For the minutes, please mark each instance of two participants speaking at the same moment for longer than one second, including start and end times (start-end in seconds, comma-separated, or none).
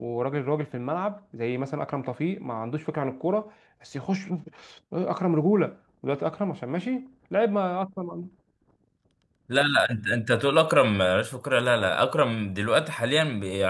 none